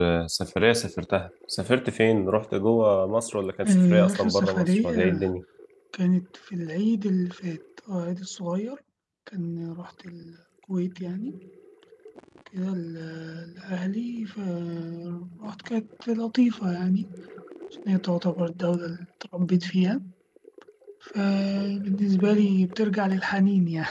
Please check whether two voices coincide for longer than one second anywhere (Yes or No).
Yes